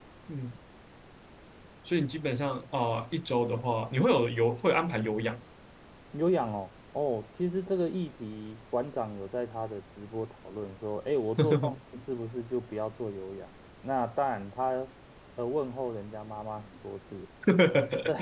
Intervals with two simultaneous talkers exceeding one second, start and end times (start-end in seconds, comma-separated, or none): none